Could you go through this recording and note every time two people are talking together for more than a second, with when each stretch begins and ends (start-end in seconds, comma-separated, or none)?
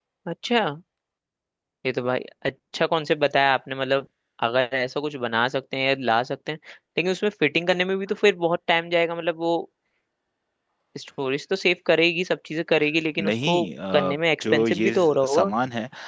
13.2-15.5